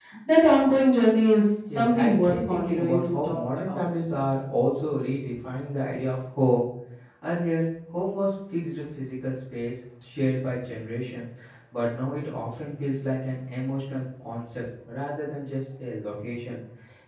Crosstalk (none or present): present